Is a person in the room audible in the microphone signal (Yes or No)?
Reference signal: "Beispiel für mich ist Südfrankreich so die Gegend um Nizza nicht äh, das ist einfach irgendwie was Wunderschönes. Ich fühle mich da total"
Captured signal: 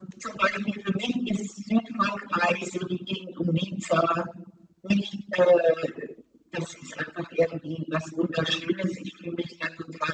No